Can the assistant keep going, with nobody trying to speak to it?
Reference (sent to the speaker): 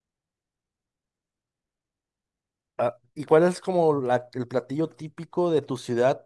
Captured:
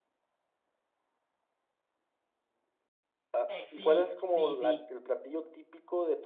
No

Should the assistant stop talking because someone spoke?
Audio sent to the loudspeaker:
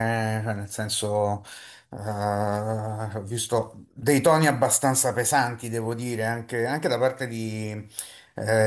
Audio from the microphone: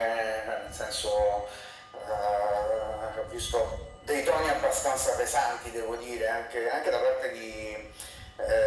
No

